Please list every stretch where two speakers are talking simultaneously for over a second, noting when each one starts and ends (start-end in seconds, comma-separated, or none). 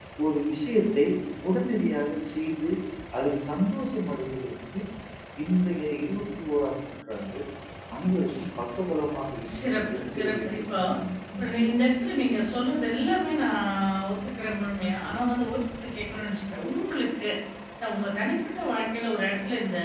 9.6-10.8